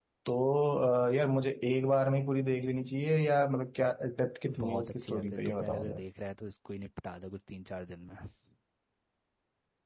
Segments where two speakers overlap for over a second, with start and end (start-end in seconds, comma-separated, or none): 4.5-6.0